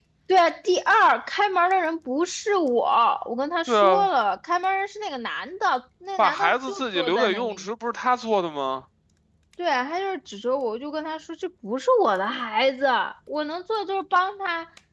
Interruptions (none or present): present